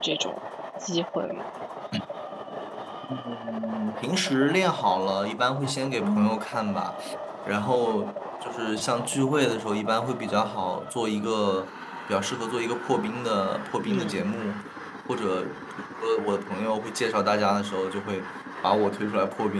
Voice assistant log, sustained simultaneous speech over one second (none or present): none